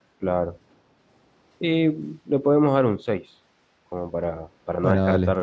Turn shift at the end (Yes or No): Yes